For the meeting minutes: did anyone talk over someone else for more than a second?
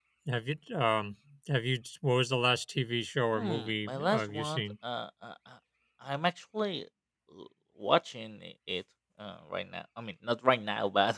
Yes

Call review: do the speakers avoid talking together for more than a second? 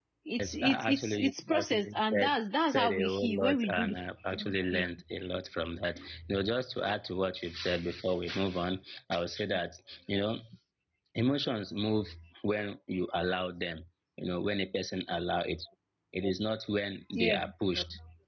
No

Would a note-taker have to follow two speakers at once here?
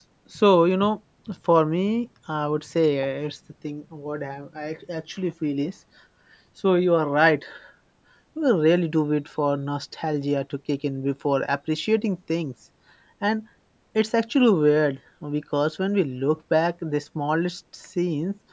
No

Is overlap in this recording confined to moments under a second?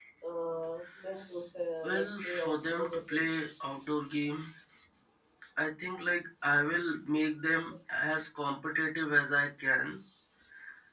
No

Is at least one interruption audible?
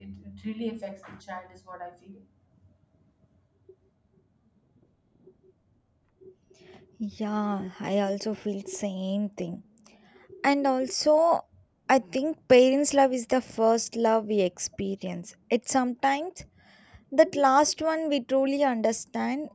No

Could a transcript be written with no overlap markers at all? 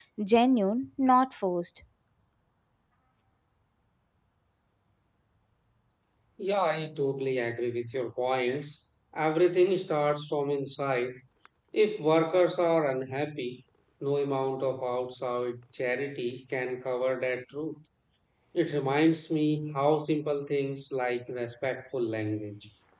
Yes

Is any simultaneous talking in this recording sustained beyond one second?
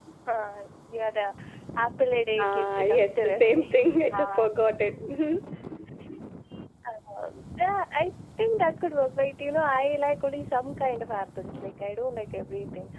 Yes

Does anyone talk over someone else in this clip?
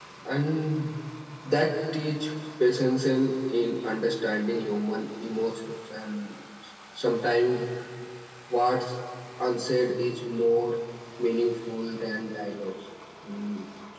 No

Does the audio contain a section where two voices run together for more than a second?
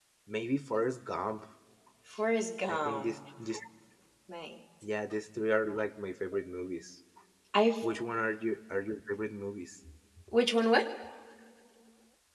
No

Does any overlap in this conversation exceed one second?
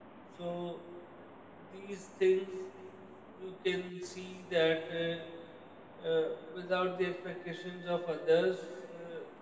No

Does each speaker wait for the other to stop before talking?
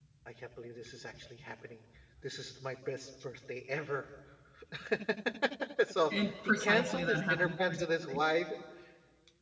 No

